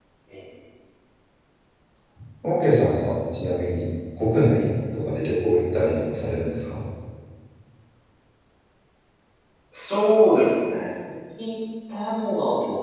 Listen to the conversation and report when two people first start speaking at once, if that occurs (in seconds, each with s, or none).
none